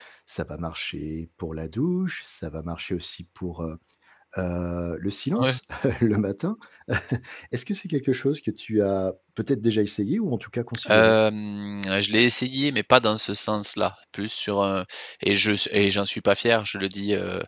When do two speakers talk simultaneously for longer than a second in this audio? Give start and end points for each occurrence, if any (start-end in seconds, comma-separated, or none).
none